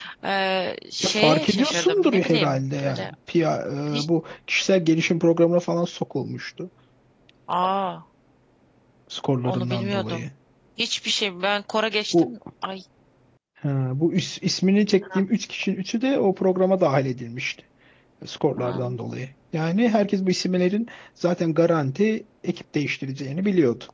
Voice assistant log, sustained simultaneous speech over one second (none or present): present